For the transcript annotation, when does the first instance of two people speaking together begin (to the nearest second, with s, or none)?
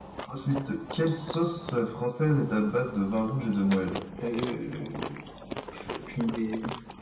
none